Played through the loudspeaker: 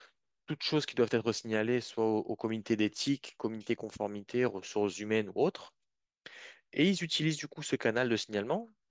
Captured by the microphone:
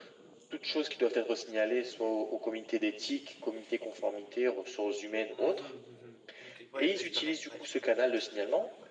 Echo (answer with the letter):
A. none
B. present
B